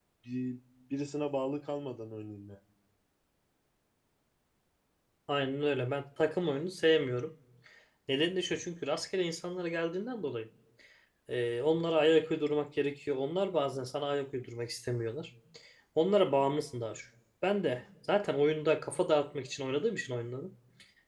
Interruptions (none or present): none